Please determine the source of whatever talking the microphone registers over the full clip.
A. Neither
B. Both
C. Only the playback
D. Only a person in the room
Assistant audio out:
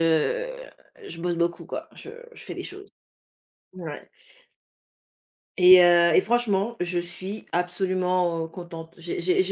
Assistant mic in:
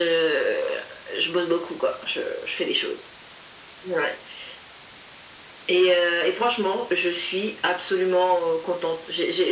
C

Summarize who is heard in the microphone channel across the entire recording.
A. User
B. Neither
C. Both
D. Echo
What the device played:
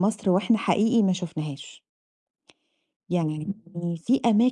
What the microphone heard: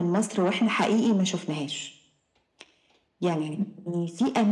D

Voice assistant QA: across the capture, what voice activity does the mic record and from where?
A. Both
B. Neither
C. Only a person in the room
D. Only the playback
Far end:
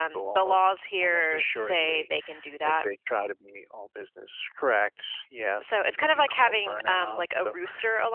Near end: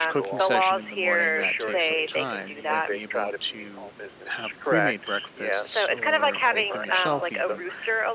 A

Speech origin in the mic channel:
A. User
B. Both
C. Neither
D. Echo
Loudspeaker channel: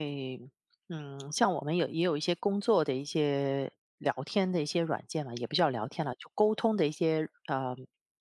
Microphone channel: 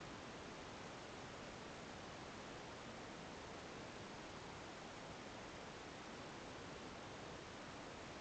C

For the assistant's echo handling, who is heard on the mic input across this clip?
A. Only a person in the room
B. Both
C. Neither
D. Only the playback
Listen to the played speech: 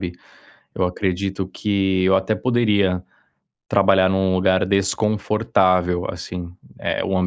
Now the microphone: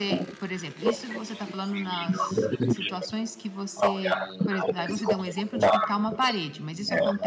B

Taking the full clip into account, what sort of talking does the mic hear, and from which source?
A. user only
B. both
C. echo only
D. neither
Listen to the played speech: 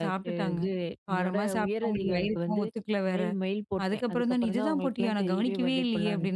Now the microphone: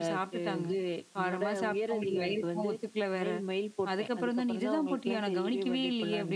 C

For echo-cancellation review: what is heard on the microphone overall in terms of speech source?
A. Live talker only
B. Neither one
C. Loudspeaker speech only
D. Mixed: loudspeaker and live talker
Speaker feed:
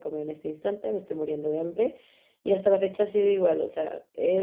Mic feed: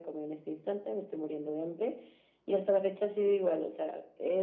C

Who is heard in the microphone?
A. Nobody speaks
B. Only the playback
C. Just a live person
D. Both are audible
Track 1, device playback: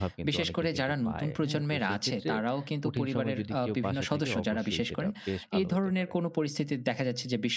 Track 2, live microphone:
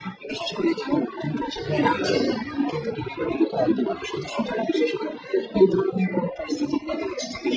D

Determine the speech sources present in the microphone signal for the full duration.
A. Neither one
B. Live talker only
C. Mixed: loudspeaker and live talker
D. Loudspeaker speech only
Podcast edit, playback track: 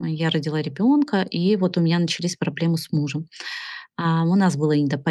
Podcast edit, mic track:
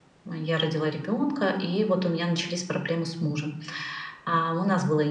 D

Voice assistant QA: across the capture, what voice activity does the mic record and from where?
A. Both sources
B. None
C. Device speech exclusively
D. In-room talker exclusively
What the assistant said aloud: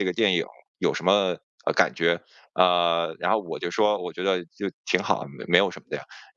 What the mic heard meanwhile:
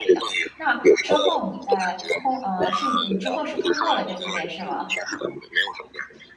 A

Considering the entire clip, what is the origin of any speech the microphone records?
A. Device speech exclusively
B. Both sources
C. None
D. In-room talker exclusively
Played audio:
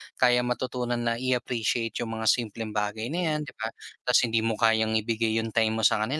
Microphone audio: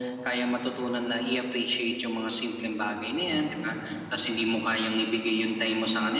A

